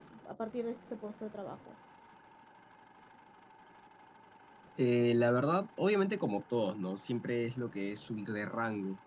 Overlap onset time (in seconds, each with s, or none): none